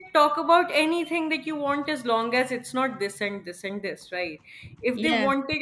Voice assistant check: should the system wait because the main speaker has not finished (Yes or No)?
Yes